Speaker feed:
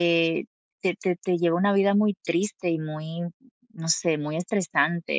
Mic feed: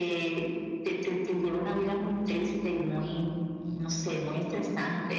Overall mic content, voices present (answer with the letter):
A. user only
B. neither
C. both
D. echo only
D